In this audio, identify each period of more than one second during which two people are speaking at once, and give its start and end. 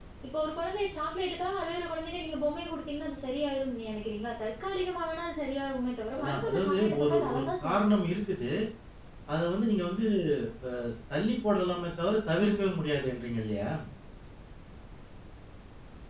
6.2-7.9

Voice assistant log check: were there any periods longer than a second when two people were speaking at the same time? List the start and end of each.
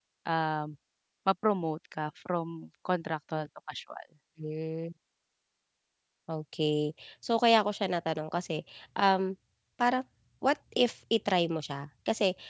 none

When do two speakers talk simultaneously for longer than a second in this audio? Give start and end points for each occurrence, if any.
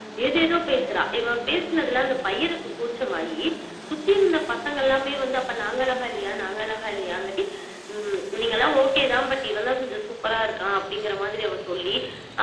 none

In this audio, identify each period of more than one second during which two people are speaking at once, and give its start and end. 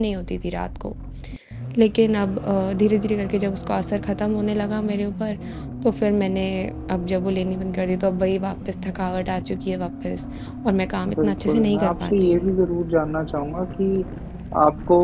11.2-12.5

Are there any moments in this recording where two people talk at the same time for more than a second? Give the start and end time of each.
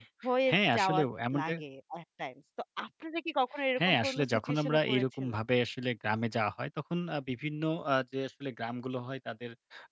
3.9-5.4

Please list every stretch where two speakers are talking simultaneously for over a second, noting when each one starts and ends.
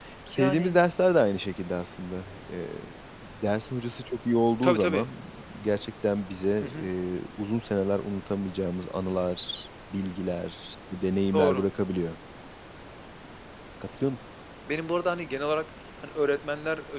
none

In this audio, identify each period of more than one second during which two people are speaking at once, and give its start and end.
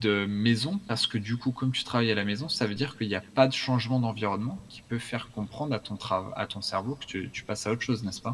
none

